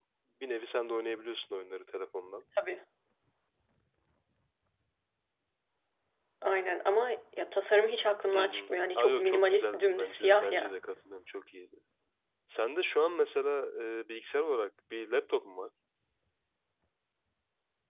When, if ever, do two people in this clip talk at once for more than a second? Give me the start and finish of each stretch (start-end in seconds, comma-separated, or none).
8.3-10.8